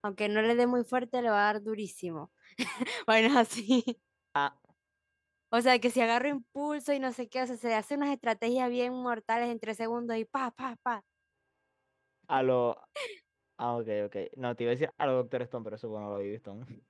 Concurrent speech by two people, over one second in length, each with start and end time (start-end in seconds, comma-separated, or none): none